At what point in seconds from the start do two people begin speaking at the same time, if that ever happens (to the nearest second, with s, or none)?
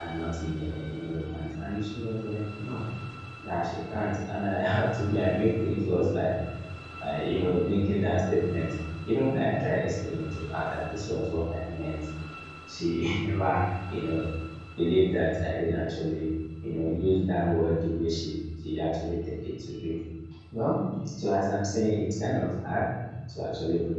none